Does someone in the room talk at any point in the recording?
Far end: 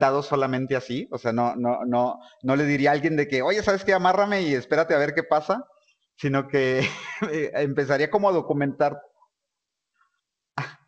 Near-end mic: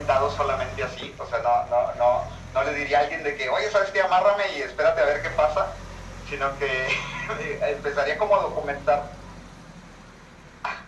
No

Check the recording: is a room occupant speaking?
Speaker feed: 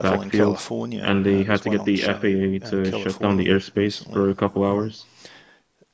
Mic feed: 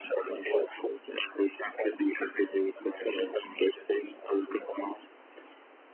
No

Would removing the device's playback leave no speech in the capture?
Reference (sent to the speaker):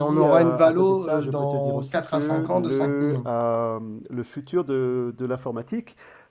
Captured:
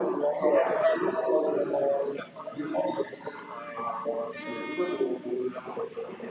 Yes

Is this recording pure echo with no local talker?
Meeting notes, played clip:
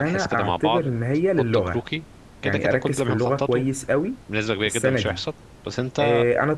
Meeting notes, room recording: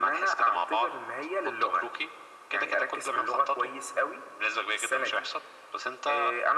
Yes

